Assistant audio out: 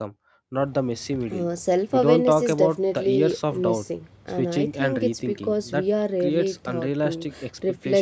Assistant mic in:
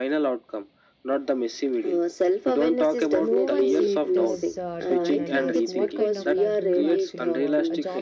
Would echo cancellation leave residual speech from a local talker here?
Yes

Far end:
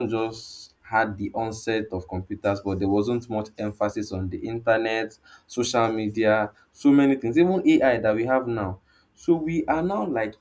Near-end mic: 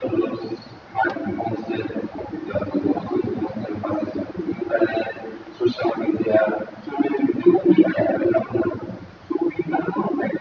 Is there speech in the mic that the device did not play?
No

